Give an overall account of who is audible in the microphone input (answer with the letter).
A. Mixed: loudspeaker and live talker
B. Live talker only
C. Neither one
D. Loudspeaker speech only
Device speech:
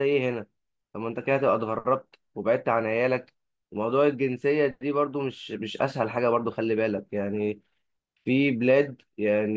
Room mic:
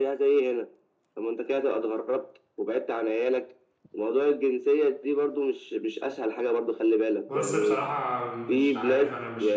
A